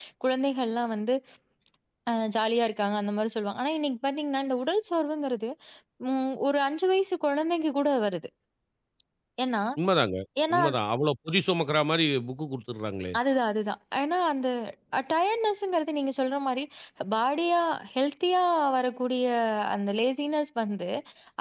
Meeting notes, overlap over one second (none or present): none